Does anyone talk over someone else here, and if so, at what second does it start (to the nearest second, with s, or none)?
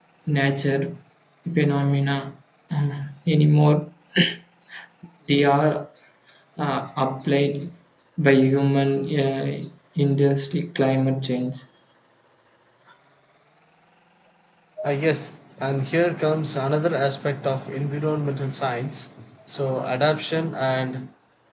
none